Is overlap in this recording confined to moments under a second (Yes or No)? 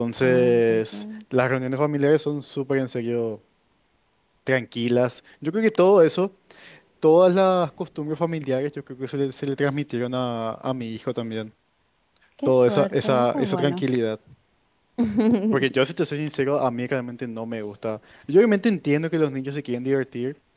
No